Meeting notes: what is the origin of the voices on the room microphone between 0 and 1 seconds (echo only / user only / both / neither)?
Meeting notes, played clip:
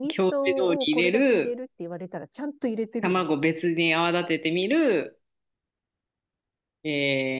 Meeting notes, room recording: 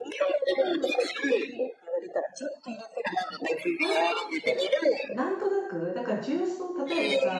echo only